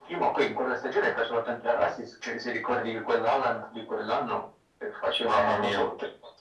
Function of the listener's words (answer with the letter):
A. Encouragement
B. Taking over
A